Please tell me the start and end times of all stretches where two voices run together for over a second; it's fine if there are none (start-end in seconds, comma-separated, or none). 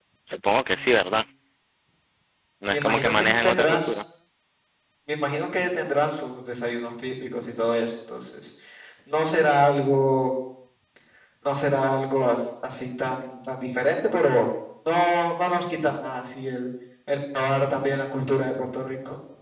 2.7-3.9